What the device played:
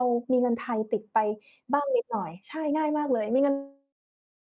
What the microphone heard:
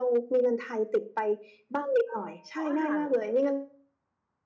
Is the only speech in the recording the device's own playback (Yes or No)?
No